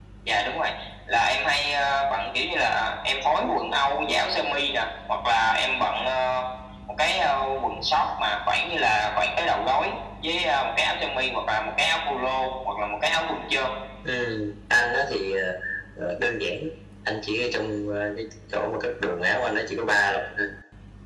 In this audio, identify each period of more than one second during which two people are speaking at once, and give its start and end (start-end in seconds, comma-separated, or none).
none